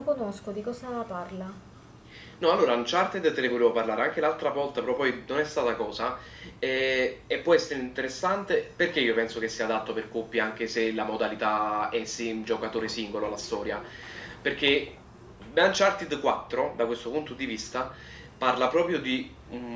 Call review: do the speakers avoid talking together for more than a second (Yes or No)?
Yes